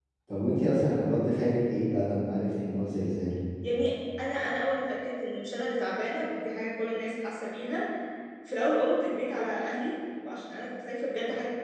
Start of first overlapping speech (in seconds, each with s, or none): none